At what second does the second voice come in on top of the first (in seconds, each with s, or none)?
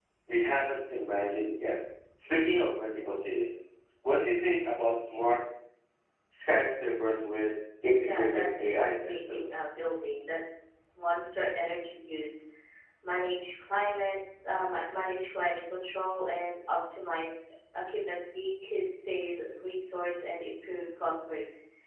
8.0 s